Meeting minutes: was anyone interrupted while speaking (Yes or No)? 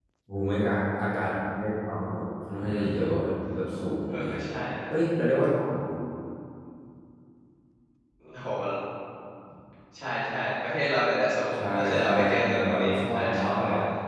Yes